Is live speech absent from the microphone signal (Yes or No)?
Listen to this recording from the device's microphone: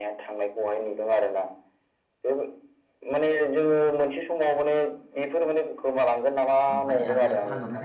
No